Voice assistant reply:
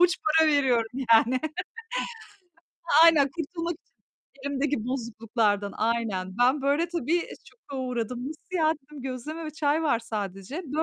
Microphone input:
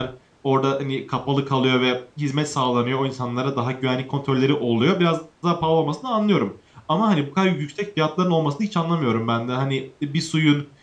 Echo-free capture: Yes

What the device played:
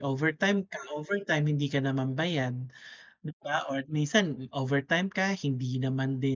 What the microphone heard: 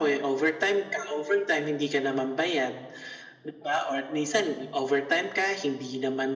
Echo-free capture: No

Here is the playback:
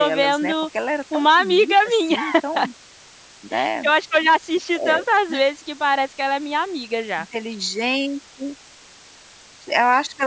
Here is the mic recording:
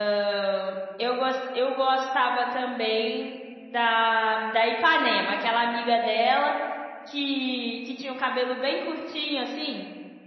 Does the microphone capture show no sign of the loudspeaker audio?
Yes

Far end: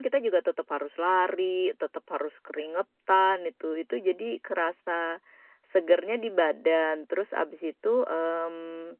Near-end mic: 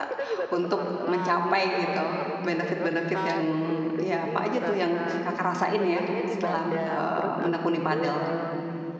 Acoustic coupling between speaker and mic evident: Yes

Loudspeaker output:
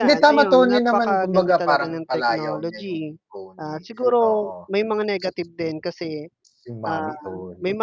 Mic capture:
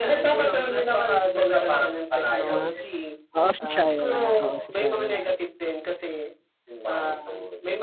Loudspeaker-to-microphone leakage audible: Yes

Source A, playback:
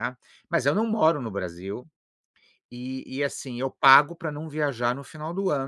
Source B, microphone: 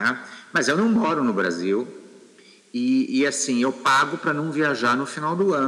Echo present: Yes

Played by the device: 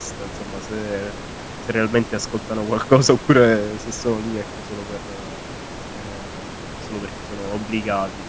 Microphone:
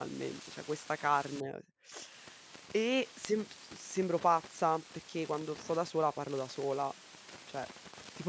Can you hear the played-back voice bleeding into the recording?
No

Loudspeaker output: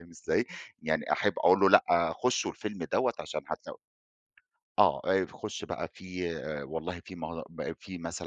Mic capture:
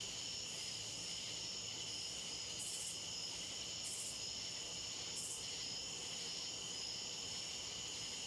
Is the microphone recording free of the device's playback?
Yes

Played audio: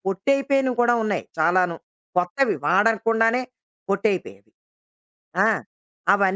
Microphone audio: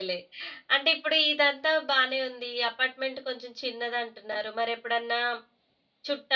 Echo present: No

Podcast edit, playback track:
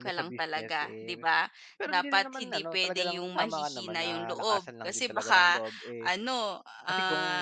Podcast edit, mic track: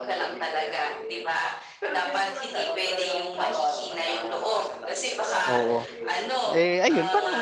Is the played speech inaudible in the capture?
No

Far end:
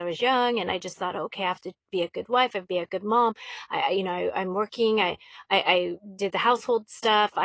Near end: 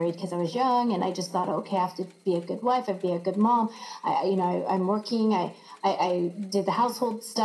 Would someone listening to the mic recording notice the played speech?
Yes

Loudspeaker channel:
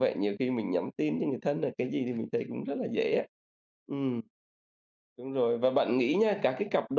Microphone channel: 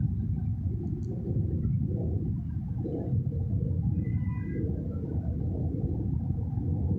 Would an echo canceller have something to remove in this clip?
No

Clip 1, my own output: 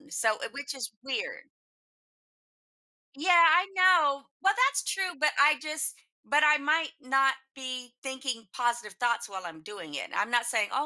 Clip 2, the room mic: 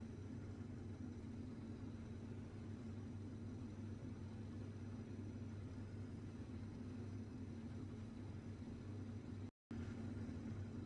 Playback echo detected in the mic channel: No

